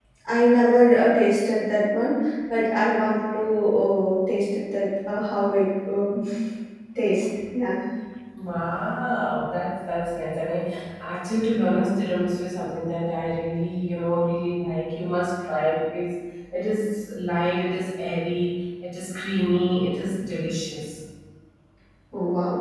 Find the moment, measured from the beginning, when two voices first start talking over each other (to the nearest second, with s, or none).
none